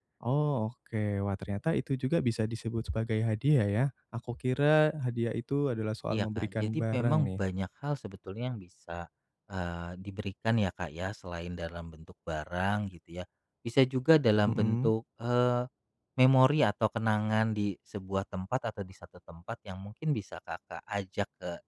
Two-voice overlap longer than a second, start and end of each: 6.1-7.4

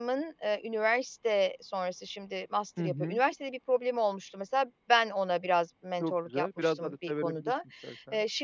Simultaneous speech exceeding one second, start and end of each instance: 6.0-7.5

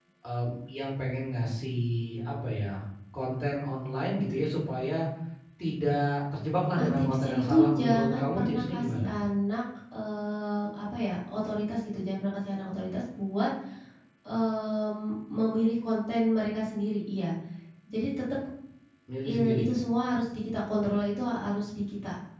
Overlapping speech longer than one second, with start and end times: 6.8-9.1

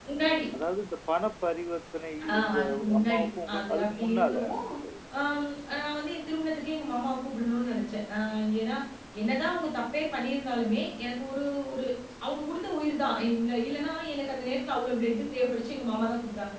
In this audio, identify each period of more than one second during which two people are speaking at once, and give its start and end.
2.3-4.7

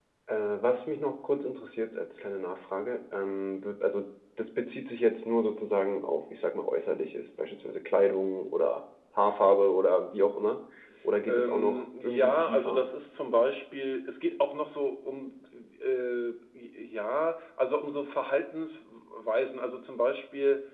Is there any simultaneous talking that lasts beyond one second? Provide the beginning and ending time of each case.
11.3-12.8

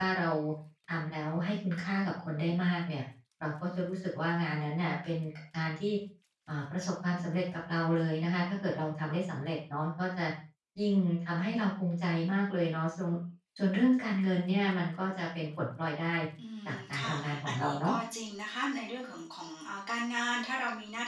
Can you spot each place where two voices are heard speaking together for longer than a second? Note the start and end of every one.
16.6-17.9

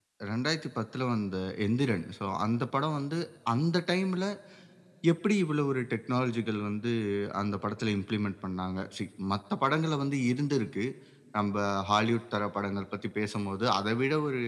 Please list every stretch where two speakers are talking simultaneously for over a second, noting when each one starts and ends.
none

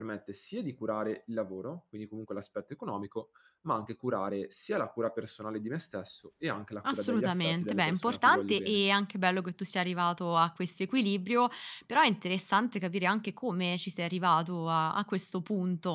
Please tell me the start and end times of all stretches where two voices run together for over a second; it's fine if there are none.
6.9-8.8

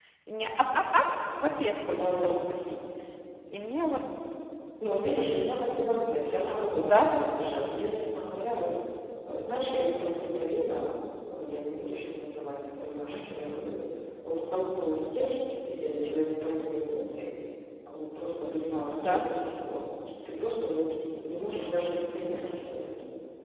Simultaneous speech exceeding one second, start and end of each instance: none

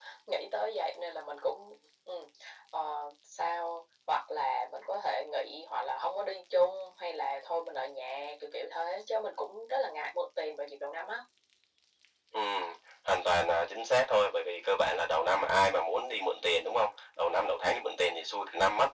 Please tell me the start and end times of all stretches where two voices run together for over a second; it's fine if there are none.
none

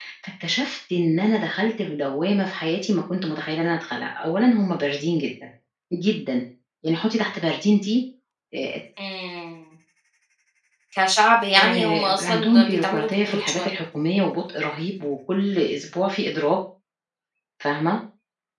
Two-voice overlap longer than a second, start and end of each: 11.6-13.7

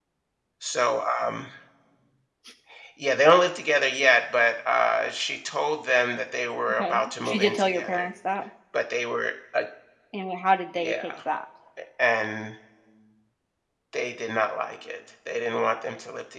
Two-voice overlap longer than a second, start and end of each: 6.8-8.1

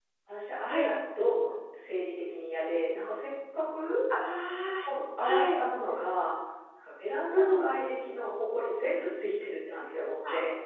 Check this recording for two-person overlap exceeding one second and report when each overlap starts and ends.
none

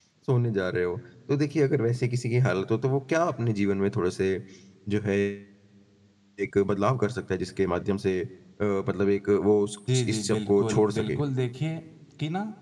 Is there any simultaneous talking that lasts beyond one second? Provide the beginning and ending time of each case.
9.9-11.2

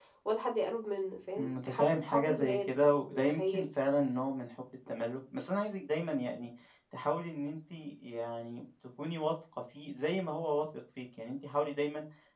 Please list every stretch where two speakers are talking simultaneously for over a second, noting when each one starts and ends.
1.4-3.6

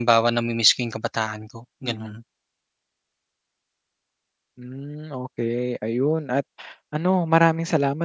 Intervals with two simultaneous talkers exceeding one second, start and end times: none

